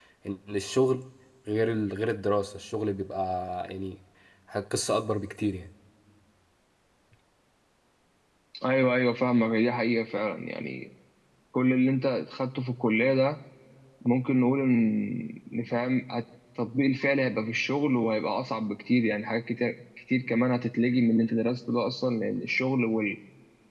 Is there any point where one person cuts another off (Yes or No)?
No